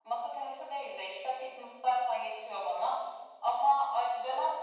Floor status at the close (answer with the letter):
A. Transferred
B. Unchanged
B